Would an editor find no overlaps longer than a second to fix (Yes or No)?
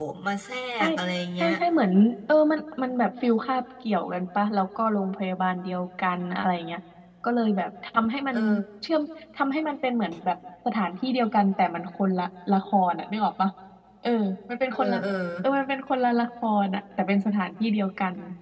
Yes